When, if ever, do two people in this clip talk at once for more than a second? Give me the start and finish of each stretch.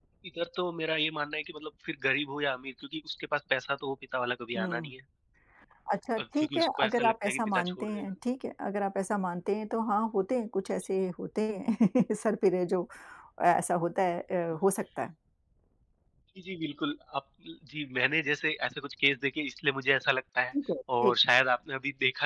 6.2-8.0

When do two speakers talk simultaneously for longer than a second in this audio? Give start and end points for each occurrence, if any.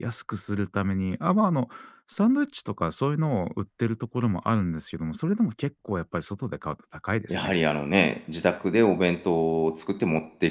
none

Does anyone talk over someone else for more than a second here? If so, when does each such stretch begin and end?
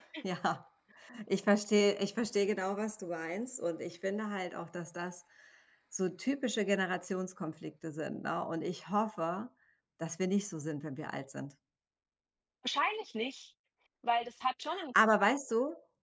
none

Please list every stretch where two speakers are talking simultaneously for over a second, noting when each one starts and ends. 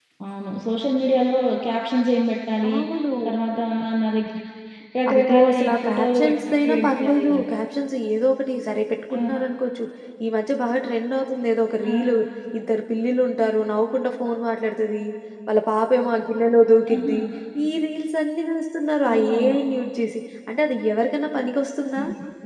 5.1-7.4

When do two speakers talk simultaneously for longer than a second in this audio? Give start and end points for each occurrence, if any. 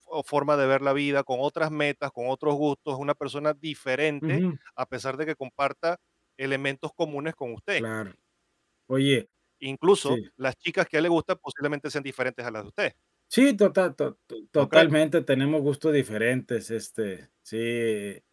none

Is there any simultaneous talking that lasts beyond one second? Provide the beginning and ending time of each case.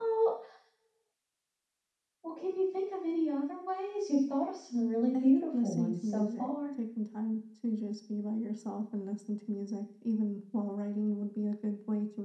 5.2-6.5

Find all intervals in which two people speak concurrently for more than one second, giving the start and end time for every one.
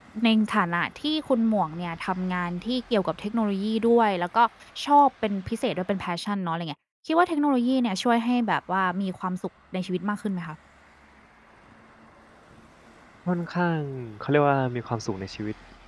none

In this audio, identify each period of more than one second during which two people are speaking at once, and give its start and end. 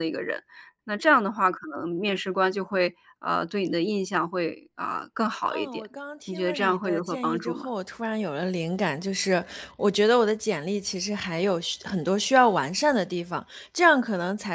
6.3-7.7

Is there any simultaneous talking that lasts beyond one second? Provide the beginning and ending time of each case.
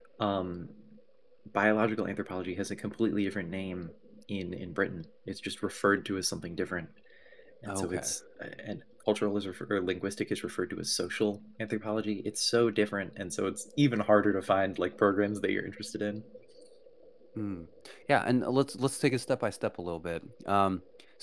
none

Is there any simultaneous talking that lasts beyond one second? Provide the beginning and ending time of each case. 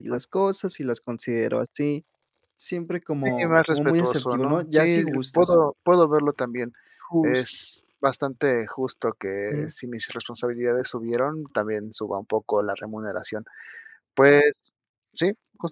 3.2-5.5

